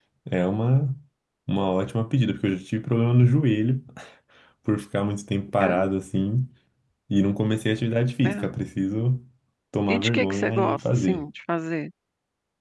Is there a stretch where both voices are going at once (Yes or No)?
Yes